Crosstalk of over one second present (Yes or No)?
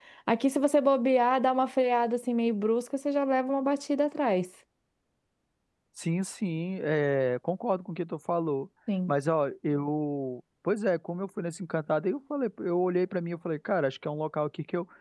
No